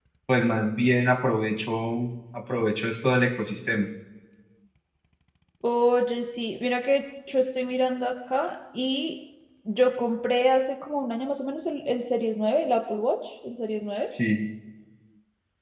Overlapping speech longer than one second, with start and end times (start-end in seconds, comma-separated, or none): none